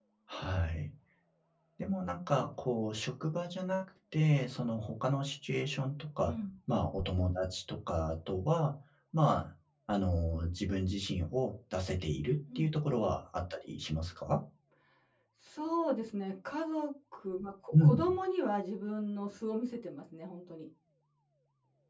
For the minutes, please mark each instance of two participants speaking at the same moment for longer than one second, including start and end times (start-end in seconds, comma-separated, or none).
none